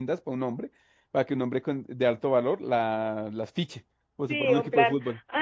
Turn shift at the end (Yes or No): Yes